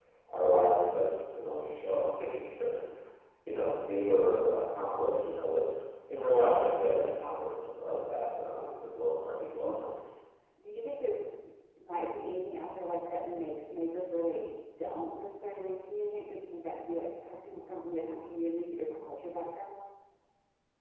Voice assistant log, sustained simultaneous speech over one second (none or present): none